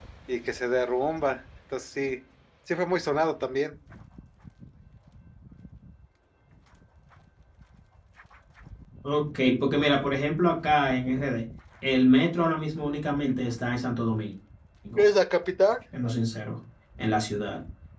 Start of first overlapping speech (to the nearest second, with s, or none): none